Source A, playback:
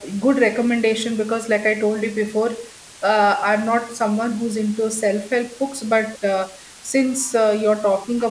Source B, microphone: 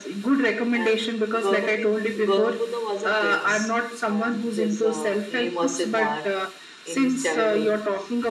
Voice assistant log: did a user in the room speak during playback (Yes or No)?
Yes